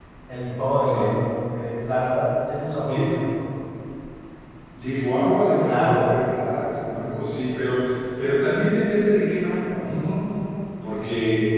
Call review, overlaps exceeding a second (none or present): none